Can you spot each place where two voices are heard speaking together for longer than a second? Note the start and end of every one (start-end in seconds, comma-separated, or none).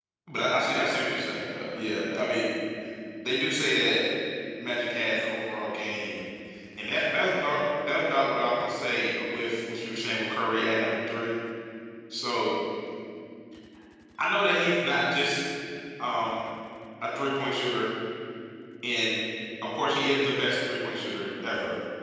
0.8-2.2